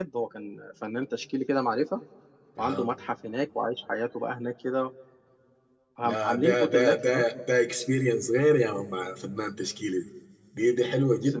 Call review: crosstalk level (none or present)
present